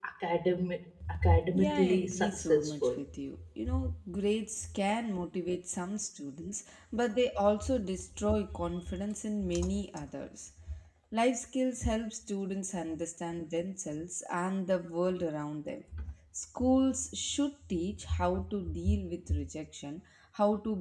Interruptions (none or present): present